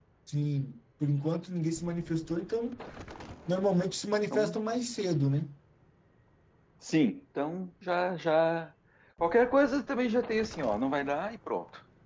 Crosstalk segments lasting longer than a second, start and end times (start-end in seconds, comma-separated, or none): none